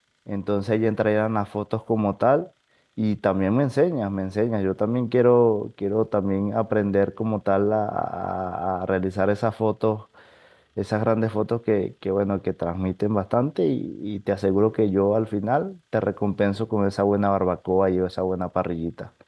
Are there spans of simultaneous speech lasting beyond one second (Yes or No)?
No